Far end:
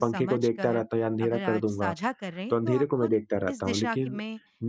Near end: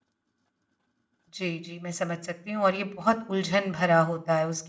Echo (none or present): none